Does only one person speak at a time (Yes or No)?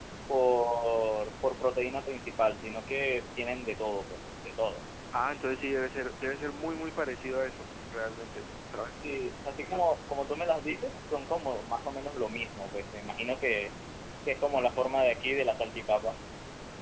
Yes